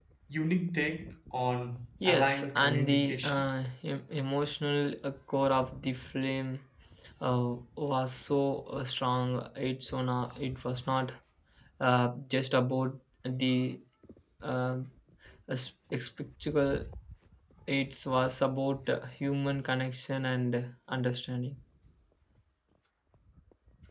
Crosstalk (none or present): present